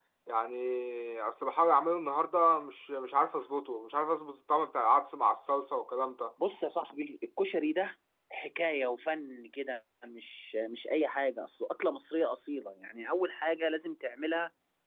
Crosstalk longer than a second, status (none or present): none